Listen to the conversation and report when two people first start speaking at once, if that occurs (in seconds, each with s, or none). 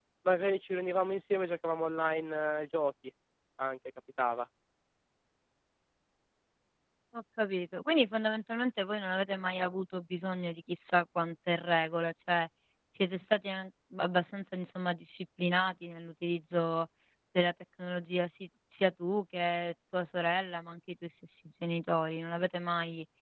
none